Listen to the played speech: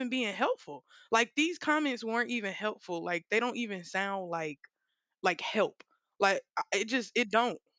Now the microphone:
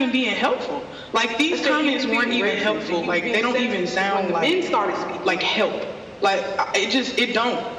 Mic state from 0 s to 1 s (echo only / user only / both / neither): echo only